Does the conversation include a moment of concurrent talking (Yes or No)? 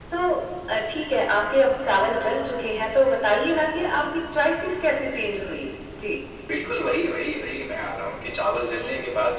No